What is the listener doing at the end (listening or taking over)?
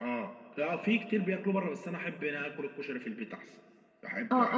taking over